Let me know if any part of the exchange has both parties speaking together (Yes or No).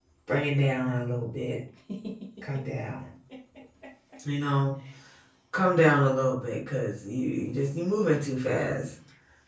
No